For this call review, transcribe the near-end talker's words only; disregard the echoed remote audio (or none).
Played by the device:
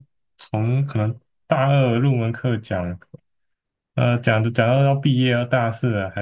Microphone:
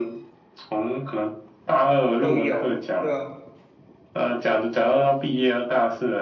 都有，对啊，